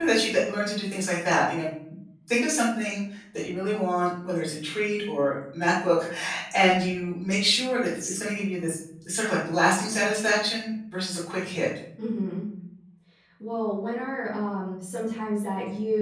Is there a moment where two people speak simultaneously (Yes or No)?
No